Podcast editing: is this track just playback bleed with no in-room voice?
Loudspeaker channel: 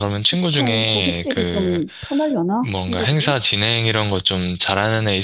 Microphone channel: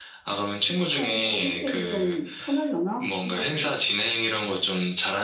Yes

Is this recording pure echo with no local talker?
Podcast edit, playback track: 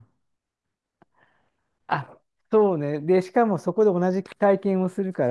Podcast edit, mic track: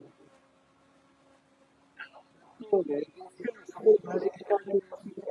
Yes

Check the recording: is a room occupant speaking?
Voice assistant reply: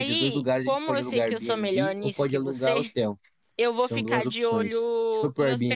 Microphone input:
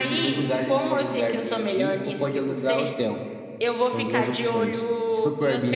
No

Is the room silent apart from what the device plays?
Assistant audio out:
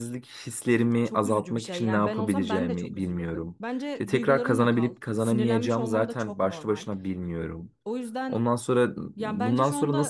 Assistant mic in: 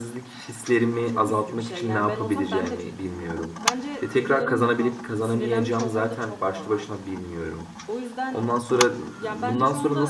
Yes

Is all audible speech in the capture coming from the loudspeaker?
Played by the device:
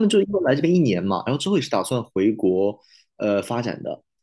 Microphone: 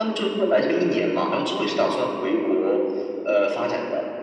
Yes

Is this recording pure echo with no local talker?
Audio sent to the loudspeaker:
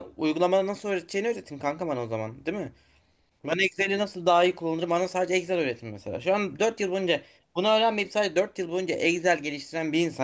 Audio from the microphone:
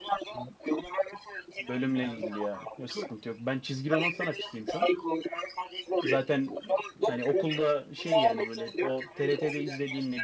No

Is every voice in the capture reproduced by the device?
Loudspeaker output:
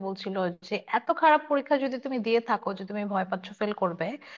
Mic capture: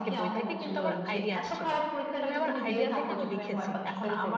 No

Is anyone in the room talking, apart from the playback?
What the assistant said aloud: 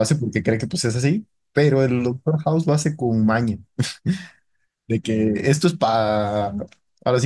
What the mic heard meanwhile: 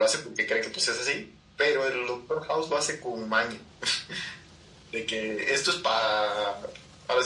No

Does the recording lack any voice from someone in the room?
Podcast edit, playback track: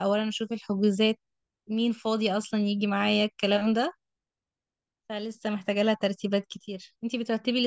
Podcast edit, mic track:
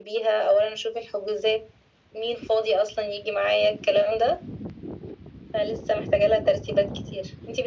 Yes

